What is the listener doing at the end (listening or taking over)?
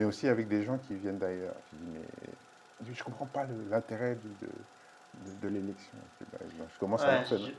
taking over